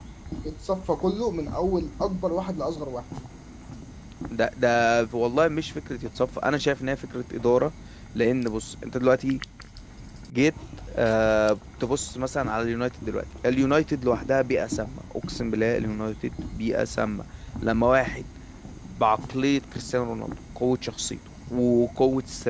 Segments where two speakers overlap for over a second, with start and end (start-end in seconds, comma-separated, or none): none